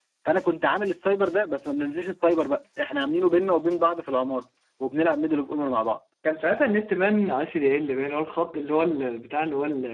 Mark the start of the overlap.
none

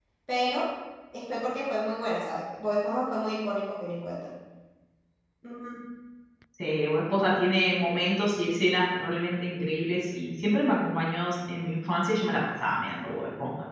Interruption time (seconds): none

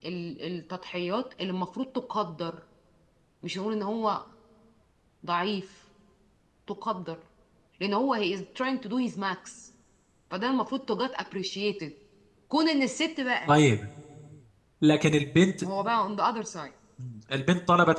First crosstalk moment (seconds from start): none

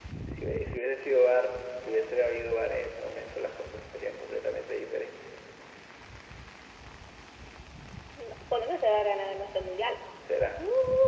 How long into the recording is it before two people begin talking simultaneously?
none

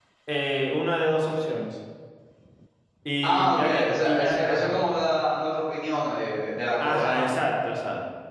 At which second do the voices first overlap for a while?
3 s

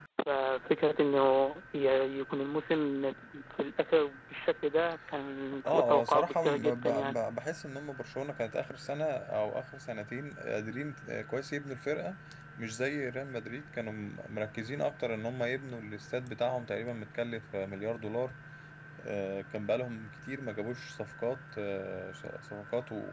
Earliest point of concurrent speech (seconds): 6 s

